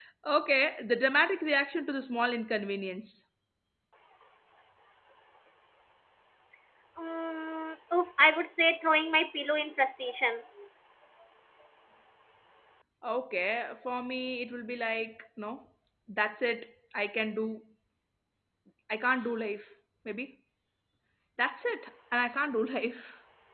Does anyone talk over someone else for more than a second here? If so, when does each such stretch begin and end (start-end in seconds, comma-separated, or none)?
none